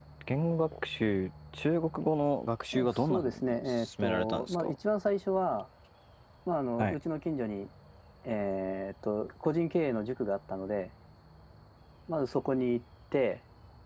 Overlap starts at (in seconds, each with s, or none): 2.7 s